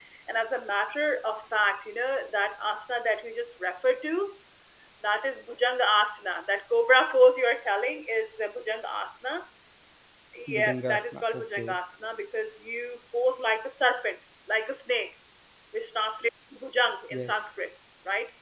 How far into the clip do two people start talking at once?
10.5 s

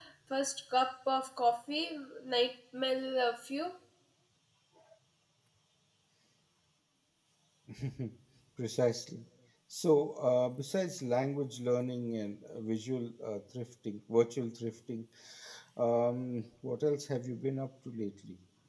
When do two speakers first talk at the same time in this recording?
none

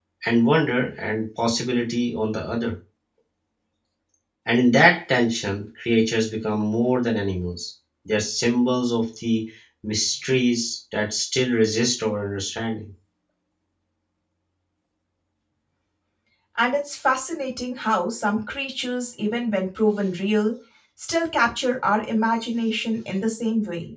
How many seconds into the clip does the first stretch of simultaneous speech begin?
none

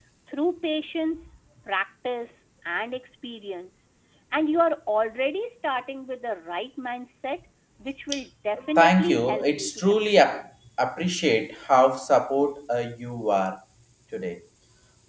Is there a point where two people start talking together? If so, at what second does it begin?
8.7 s

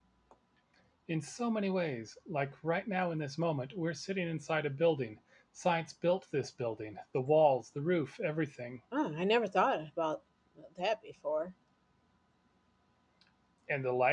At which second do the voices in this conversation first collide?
none

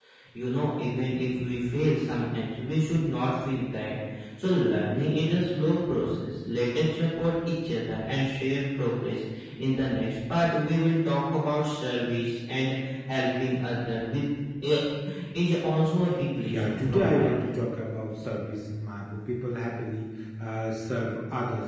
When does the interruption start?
16.4 s

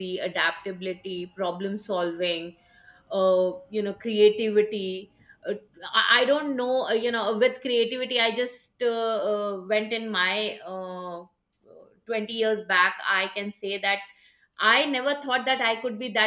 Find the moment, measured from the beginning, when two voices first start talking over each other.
none

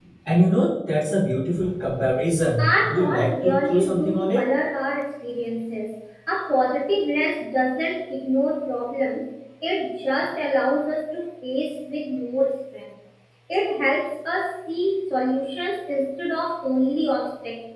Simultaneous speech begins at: 2.6 s

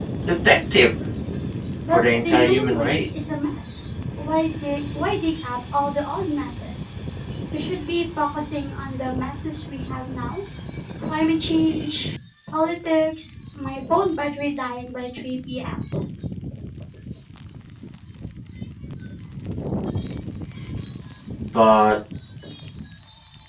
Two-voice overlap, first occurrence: 1.9 s

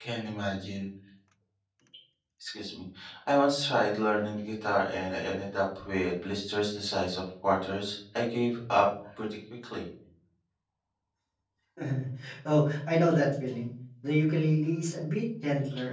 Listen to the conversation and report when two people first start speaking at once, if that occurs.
none

